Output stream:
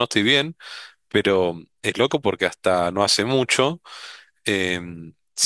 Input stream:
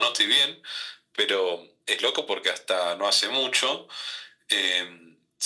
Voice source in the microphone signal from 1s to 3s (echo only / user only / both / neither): echo only